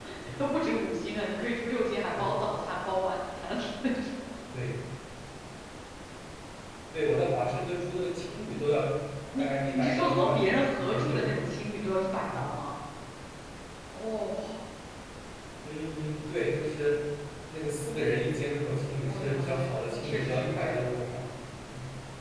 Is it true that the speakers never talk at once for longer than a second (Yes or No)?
No